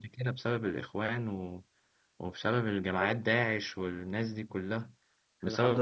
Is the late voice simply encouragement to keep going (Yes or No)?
No